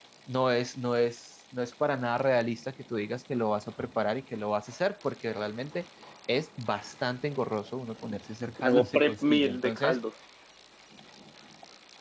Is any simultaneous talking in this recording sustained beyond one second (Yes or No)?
Yes